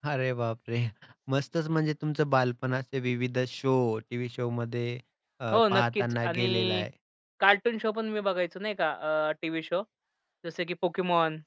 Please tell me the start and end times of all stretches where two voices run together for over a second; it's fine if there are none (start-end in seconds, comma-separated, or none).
5.5-6.8